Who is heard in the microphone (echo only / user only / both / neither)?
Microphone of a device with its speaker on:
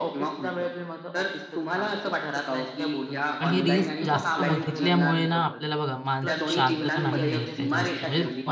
both